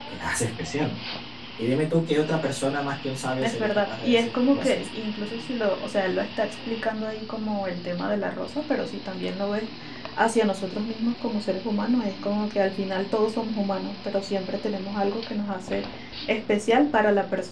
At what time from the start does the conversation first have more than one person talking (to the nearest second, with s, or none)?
3 s